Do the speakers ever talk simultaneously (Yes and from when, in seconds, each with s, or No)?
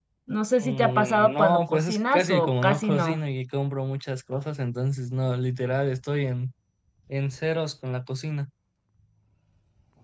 Yes, from 0.6 s